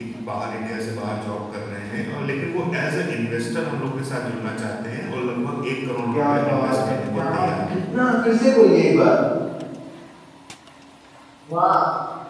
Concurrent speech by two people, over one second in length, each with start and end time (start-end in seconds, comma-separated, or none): 6.1-7.8